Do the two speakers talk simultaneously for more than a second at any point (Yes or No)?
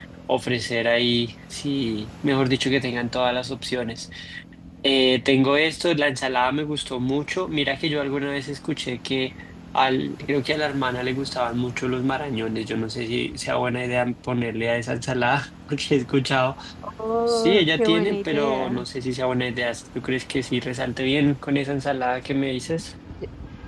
Yes